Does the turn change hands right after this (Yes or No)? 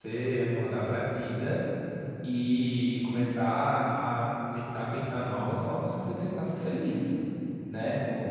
No